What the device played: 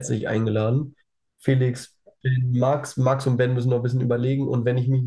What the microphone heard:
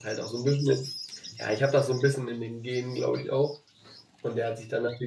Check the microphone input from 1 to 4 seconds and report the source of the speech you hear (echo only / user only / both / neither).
user only